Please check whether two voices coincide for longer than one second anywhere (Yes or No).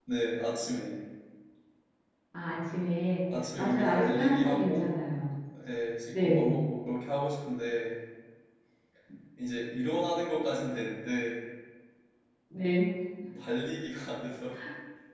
Yes